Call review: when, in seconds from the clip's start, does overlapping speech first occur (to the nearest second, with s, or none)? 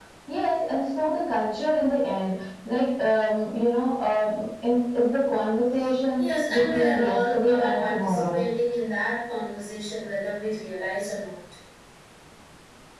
6 s